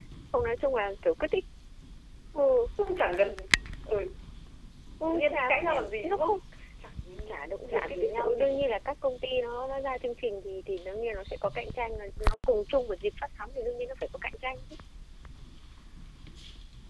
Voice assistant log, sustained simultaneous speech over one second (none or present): present